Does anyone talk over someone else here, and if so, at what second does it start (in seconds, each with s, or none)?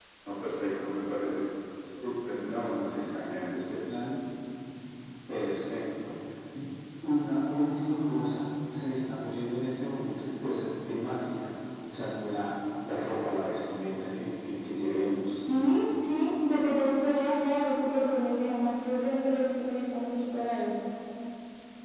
none